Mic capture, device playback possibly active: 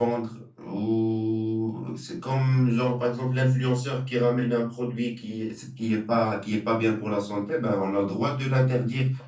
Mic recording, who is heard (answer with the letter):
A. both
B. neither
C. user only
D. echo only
C